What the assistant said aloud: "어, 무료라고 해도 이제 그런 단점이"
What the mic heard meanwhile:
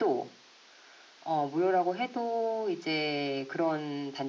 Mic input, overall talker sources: echo only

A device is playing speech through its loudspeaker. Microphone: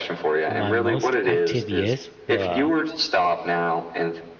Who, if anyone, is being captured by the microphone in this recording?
both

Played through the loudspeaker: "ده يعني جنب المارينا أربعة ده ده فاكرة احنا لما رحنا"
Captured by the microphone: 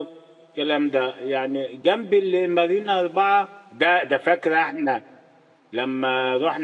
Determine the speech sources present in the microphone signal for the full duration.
echo only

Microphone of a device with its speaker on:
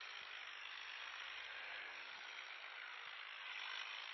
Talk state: neither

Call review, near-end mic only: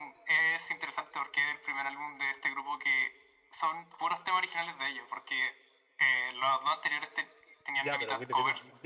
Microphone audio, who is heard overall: both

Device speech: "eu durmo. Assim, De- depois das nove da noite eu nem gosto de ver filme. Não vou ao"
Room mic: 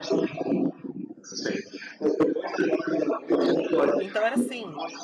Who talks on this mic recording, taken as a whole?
both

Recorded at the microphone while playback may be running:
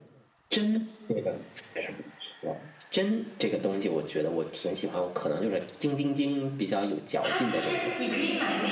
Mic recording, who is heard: both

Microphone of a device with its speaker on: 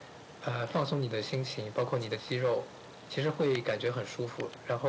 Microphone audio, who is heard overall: echo only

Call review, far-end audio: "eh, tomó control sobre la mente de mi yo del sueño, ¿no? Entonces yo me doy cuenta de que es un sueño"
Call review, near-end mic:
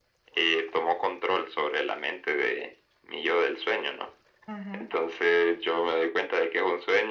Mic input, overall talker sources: both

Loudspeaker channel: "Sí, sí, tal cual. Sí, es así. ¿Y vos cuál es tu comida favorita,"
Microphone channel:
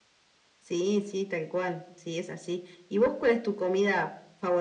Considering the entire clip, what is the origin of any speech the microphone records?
echo only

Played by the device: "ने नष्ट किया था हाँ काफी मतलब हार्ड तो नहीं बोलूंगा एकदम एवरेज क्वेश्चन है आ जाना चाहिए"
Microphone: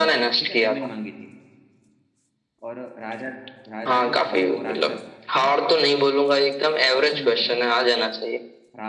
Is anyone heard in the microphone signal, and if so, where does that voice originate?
both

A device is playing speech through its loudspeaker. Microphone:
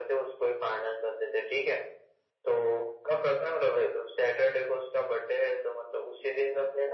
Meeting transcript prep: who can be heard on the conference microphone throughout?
echo only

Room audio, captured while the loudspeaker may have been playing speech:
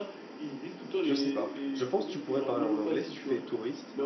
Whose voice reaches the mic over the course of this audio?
both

